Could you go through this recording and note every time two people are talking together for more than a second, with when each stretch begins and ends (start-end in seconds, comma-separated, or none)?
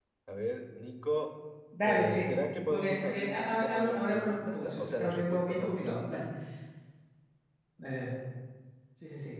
2.7-6.2